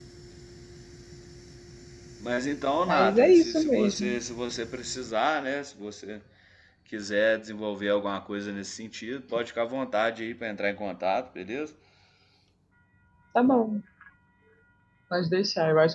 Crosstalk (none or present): present